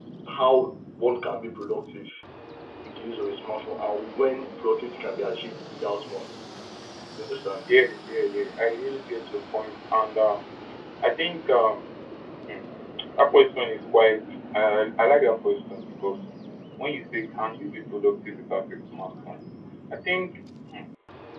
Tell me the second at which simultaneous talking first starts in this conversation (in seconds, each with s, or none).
none